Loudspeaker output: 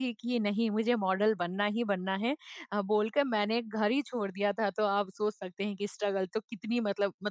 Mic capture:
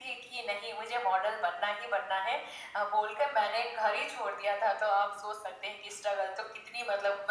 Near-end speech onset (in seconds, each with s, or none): none